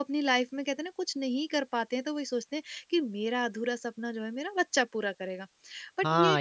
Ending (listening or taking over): taking over